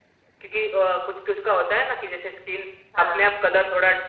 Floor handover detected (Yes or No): No